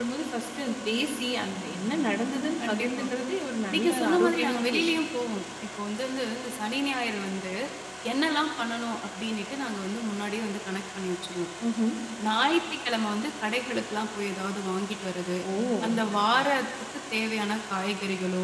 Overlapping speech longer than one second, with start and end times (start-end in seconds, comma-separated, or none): 3.7-5.0